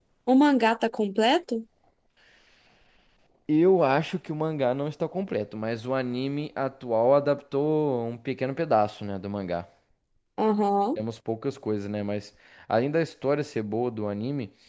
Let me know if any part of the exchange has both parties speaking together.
No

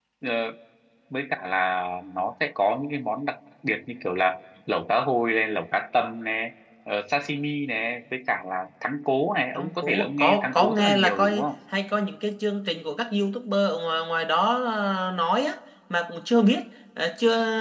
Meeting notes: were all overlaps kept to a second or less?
No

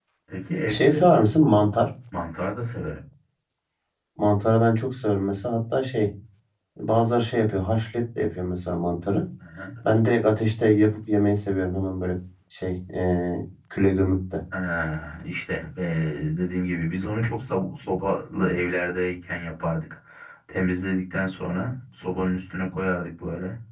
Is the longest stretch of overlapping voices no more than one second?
Yes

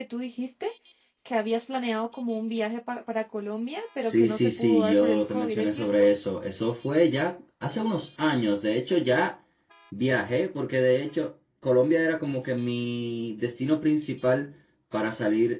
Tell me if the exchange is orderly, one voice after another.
No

